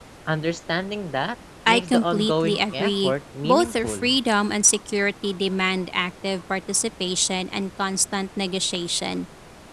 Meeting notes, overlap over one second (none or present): present